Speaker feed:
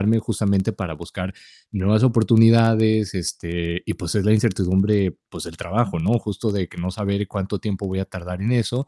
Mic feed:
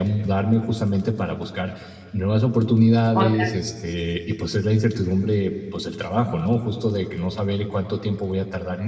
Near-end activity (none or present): present